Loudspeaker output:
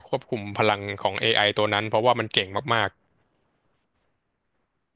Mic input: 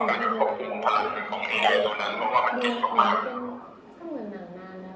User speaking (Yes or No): Yes